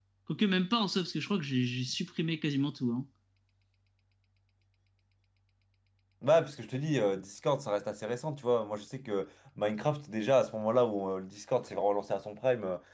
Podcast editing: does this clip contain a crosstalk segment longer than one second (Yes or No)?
No